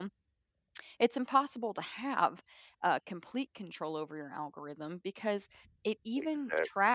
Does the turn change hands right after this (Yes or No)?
No